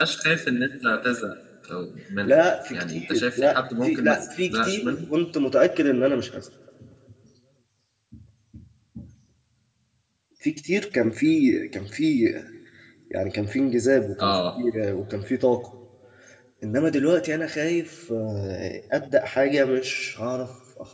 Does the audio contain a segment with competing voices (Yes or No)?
Yes